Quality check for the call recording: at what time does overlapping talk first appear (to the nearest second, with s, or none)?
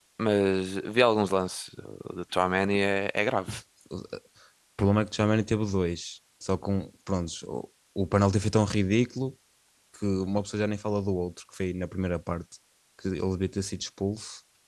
none